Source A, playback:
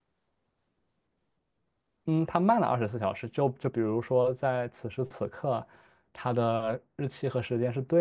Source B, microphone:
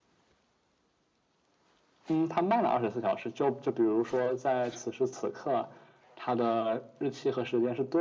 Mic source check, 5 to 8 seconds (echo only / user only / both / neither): echo only